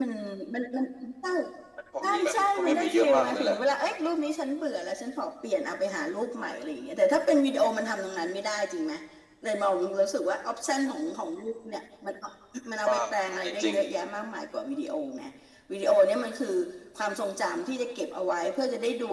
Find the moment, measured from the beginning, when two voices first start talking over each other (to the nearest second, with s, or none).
2 s